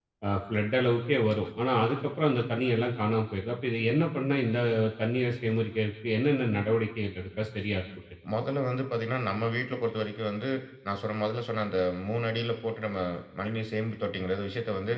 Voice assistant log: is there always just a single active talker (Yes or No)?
Yes